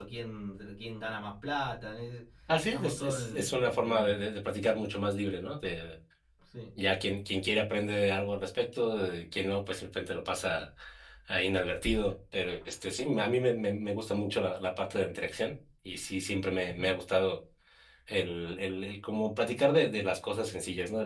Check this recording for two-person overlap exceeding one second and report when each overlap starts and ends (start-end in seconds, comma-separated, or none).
2.7-4.2